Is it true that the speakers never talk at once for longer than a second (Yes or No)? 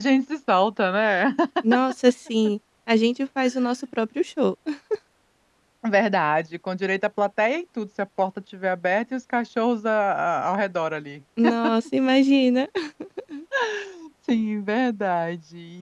Yes